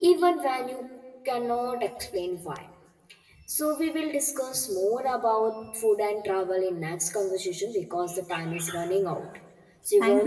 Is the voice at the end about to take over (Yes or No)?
Yes